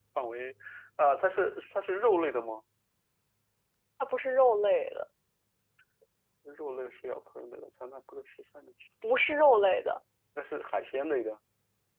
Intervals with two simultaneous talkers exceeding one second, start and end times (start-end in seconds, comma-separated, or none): none